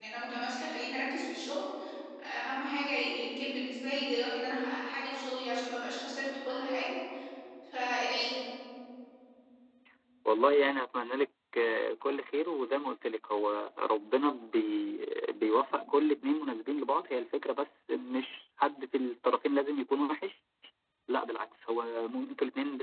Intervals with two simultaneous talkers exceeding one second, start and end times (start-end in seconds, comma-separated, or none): none